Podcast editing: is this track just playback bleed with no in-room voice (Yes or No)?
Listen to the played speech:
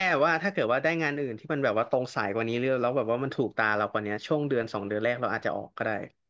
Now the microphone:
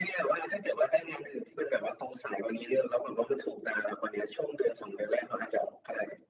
Yes